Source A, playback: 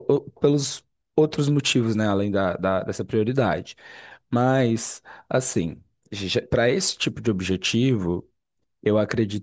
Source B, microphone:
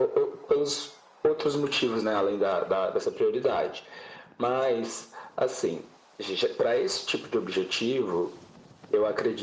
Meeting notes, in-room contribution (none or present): none